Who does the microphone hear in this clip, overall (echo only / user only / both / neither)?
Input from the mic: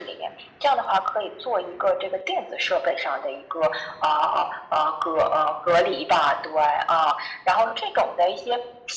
echo only